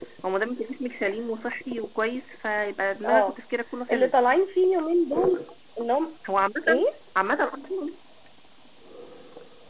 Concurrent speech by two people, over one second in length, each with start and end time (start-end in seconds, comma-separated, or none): none